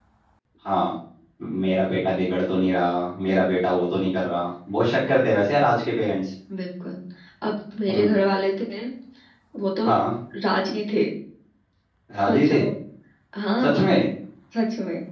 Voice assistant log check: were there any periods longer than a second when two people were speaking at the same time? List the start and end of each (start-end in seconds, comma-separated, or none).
none